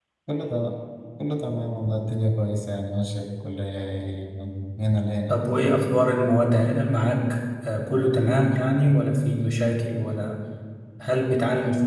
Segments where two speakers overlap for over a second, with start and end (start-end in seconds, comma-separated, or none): none